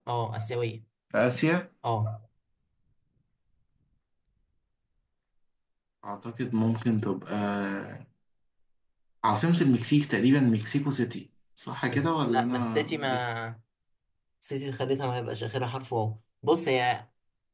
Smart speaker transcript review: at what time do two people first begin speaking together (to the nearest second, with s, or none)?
12 s